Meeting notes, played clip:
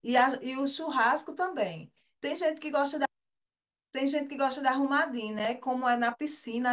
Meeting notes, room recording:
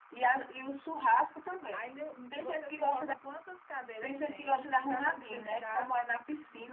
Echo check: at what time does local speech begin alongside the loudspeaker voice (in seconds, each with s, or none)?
1.7 s